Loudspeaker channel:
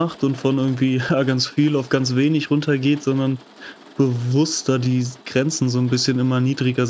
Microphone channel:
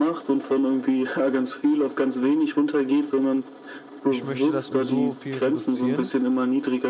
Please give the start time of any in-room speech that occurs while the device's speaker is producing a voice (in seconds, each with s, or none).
4.0 s